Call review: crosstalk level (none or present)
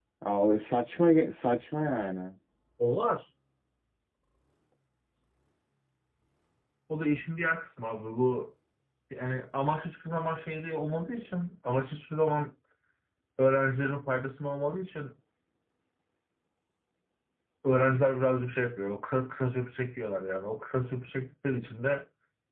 none